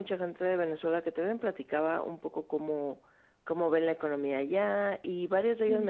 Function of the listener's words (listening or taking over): listening